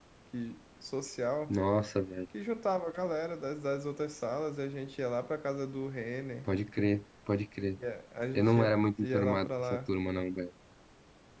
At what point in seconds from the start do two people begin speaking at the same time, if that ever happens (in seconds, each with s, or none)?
8.3 s